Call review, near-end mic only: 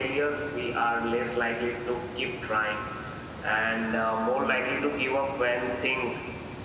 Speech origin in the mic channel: echo only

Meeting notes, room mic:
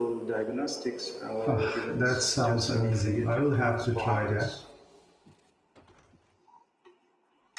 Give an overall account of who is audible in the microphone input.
both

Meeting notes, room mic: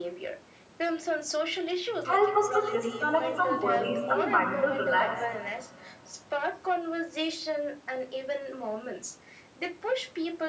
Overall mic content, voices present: both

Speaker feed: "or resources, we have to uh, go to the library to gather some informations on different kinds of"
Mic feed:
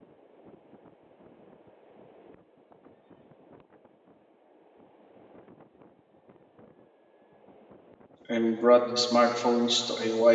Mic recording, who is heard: user only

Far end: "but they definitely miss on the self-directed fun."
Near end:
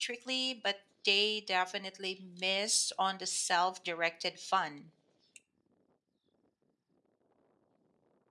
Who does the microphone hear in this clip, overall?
echo only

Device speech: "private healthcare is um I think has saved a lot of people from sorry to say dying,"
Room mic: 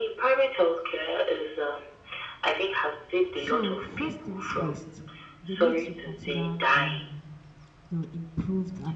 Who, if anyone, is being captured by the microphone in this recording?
both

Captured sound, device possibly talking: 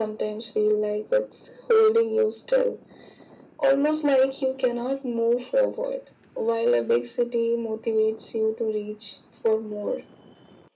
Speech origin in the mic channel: echo only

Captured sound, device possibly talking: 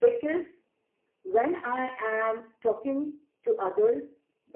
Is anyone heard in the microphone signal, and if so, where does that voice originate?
echo only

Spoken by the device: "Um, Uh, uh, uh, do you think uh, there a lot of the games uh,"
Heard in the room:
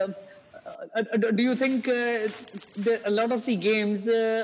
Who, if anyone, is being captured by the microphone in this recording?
echo only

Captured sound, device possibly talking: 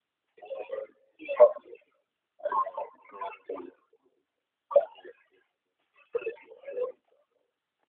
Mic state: echo only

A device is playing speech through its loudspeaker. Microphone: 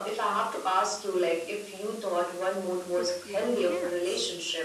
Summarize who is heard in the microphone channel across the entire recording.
both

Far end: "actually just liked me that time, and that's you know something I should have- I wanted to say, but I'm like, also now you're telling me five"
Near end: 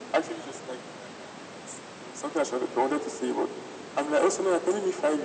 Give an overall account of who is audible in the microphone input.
echo only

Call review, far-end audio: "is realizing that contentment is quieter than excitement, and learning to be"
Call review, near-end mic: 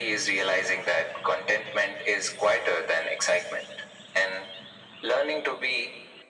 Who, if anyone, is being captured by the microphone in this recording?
echo only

